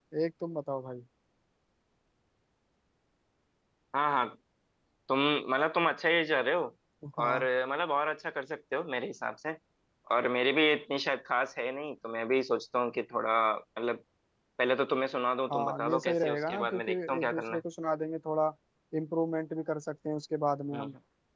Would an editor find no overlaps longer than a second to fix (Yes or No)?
No